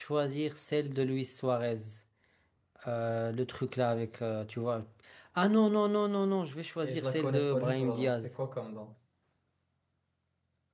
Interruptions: present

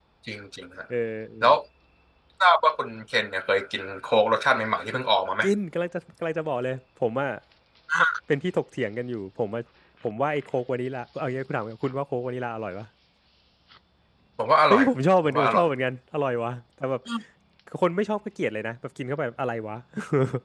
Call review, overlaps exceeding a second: none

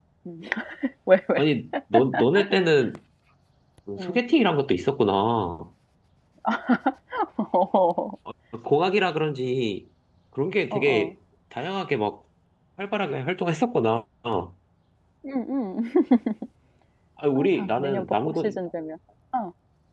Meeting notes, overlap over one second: present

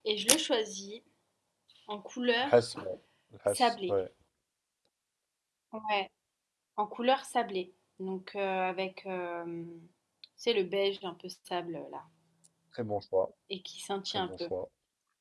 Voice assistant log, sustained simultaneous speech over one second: none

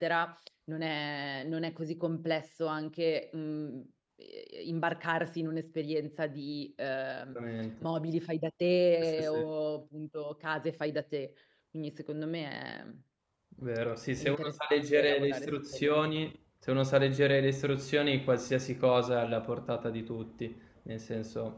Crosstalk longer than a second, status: present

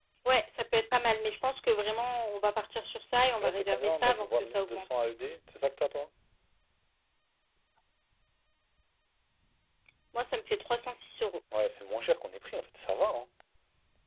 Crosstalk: present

